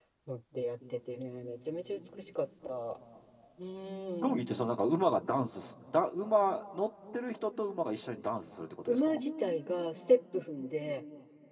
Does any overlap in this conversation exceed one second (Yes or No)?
No